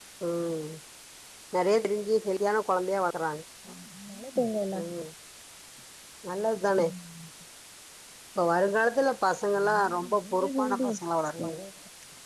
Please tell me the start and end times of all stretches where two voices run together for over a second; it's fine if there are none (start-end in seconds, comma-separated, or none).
9.7-10.9